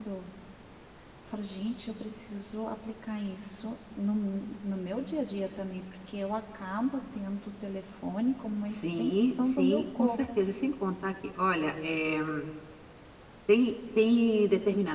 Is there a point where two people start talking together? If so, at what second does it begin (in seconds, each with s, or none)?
8.7 s